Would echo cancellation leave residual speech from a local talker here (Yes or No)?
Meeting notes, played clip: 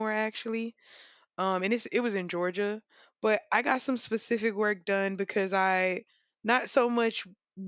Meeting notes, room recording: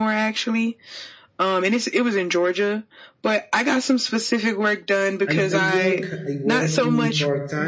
Yes